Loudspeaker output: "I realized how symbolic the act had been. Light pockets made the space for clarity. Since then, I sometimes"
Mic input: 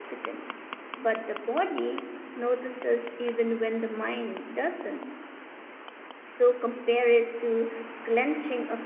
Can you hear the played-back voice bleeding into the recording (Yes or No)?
No